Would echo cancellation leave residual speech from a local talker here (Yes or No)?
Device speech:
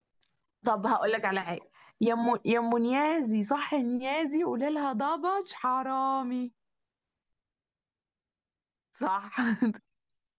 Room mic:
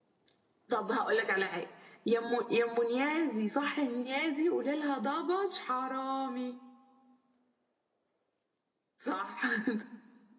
No